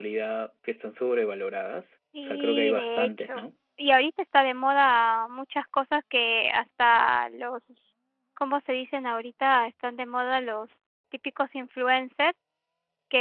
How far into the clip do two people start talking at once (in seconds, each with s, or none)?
2.1 s